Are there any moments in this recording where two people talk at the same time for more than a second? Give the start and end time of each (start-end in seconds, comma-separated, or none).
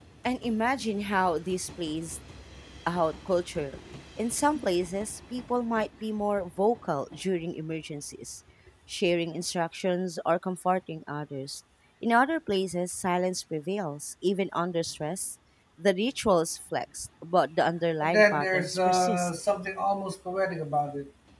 18.0-19.3